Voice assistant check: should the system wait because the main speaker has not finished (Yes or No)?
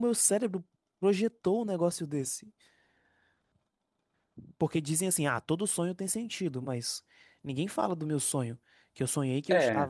Yes